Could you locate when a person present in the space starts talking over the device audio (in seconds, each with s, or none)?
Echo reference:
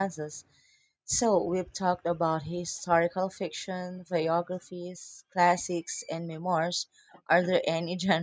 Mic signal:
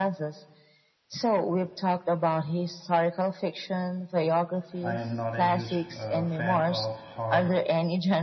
4.8 s